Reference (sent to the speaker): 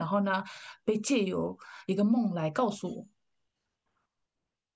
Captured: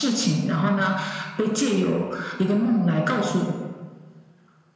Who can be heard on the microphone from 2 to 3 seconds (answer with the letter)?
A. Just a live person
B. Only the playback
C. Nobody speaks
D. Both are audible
B